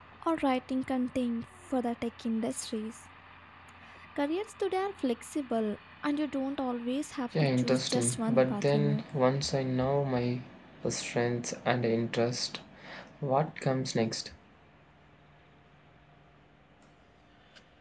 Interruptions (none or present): present